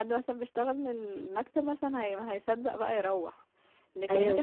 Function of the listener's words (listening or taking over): listening